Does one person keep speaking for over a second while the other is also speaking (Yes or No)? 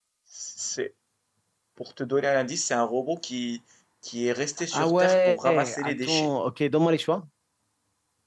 Yes